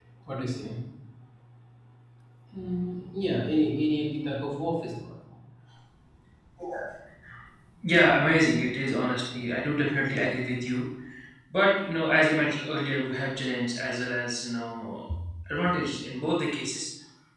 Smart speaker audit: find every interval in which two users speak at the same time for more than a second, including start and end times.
none

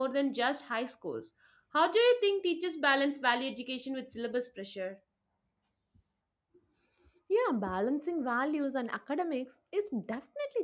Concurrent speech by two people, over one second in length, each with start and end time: none

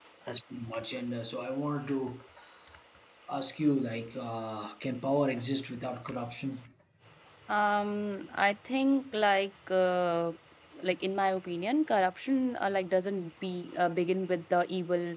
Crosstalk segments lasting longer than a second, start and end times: none

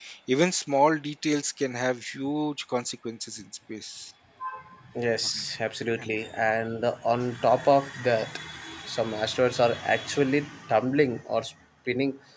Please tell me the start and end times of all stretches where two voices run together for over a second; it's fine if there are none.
none

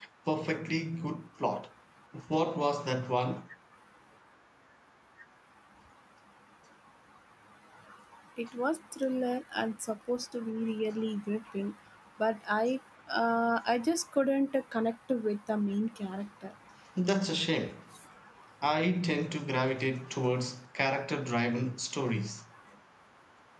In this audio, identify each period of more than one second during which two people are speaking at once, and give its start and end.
none

